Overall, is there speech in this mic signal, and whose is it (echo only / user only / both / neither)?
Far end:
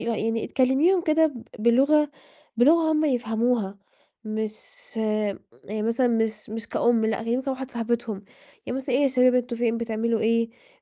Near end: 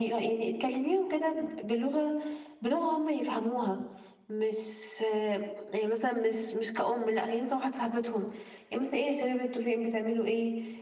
echo only